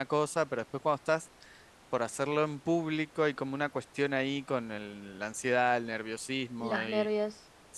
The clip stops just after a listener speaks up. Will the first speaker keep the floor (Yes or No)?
Yes